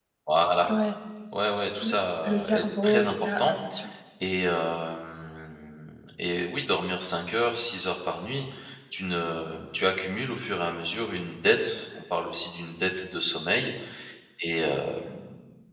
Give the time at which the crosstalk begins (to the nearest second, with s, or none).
2 s